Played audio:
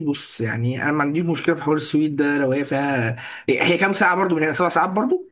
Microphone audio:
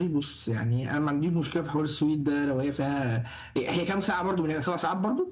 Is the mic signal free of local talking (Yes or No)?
Yes